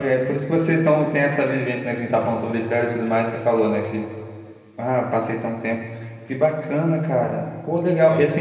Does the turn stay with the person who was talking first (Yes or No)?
Yes